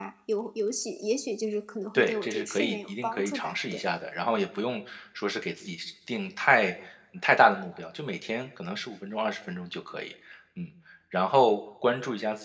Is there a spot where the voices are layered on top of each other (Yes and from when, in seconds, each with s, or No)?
Yes, from 1.9 s